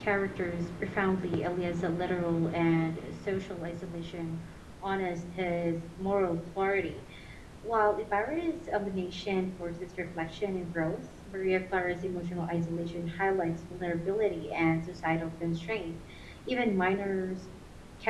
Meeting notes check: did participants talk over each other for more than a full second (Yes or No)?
No